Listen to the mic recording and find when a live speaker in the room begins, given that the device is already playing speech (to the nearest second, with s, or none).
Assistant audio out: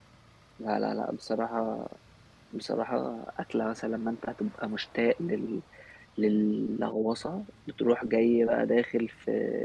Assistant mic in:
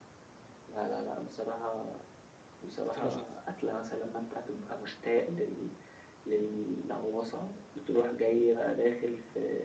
3 s